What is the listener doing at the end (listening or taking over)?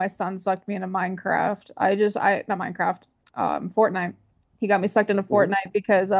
listening